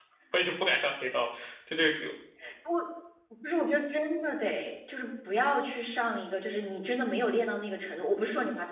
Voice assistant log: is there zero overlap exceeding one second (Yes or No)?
Yes